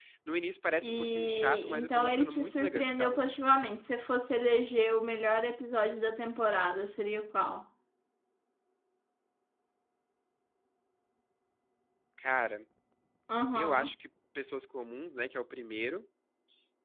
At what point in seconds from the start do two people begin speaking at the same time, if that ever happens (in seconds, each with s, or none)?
0.8 s